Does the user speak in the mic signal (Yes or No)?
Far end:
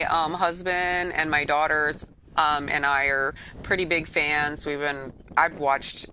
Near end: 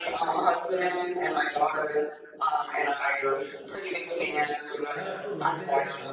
Yes